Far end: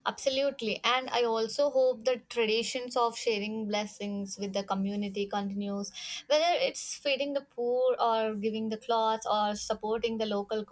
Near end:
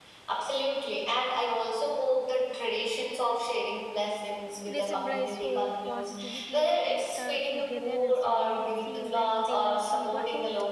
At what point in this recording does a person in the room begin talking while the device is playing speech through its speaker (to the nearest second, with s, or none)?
5 s